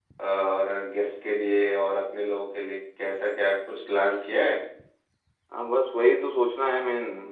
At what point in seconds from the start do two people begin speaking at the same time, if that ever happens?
none

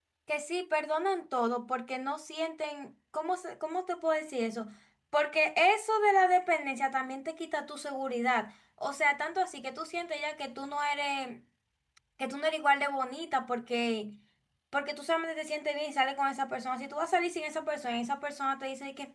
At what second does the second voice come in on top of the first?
none

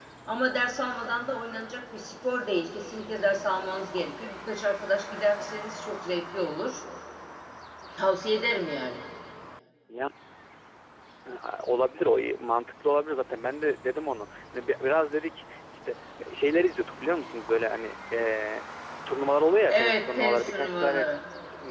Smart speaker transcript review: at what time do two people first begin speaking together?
20 s

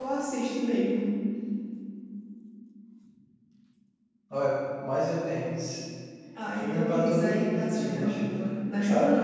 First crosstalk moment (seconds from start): 7 s

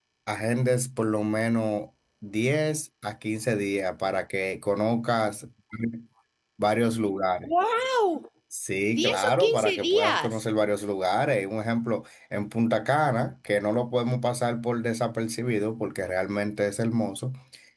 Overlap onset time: 9 s

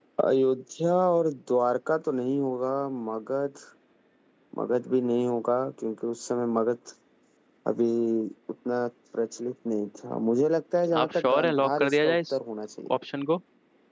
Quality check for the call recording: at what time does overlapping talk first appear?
11 s

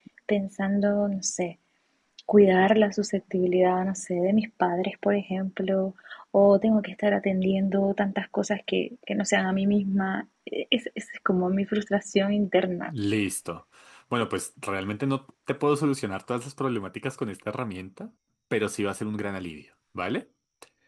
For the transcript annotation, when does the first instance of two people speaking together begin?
none

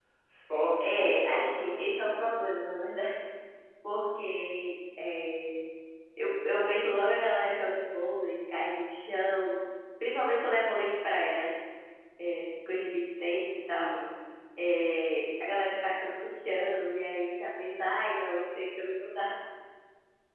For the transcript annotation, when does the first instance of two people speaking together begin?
1 s

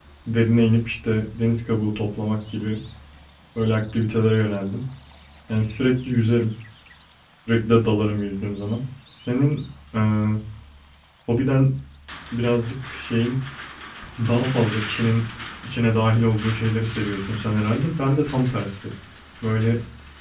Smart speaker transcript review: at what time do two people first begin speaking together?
none

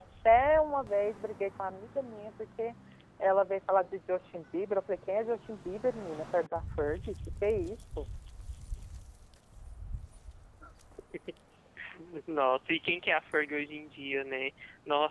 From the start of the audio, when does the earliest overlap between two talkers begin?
none

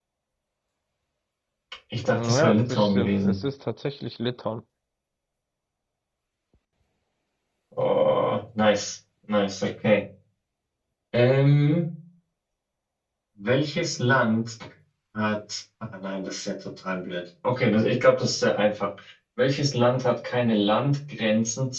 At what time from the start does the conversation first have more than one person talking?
2 s

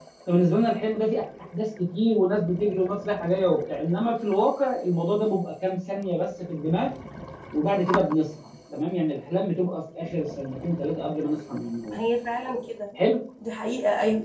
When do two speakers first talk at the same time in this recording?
none

